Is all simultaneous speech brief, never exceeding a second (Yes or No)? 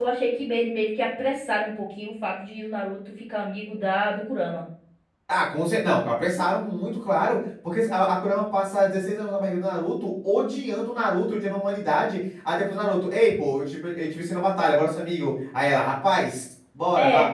Yes